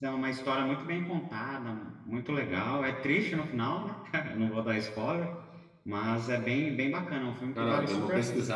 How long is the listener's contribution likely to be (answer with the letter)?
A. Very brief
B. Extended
B